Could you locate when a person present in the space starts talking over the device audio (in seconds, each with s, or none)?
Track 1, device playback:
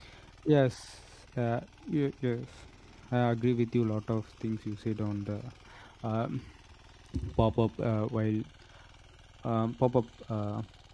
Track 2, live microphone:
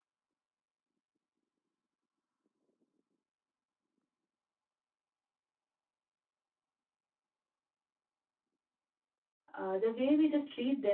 9.5 s